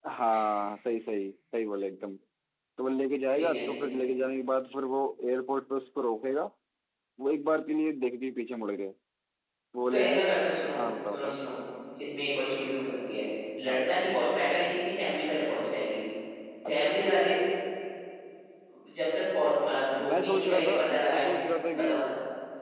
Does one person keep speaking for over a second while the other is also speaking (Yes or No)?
Yes